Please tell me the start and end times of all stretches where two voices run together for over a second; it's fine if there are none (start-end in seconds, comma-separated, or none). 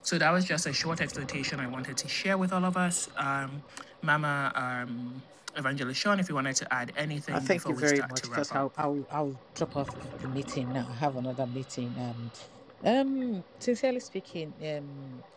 7.3-8.6